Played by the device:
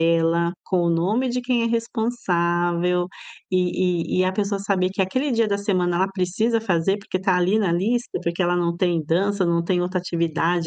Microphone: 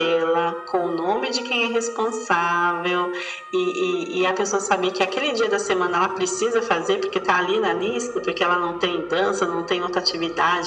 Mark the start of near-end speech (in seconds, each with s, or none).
none